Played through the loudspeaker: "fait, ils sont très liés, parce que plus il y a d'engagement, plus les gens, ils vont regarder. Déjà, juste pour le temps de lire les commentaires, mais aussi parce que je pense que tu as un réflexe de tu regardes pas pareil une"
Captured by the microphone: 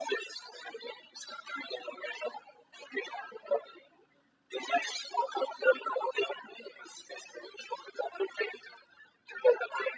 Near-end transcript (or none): none